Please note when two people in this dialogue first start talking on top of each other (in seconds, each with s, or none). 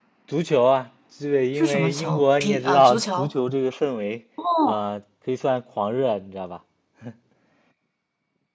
1.6 s